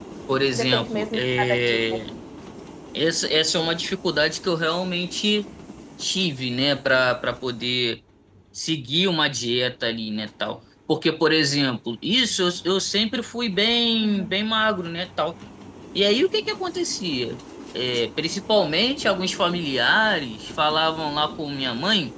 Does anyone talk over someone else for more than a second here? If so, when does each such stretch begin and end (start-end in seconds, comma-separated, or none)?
0.5-2.0